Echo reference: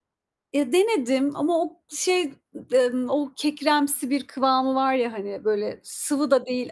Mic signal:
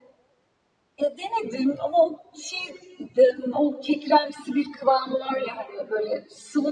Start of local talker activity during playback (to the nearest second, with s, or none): none